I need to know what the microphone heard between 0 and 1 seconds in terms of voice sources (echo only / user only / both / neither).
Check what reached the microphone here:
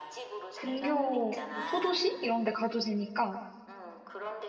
both